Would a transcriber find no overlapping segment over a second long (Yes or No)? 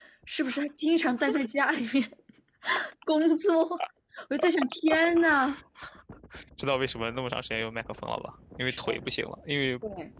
Yes